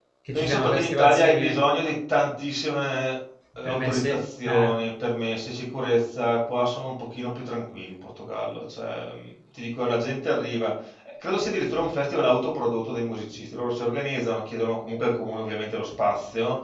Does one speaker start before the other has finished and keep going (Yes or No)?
Yes